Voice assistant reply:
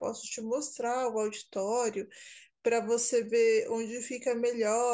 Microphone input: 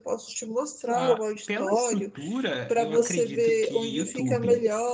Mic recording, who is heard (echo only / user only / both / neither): both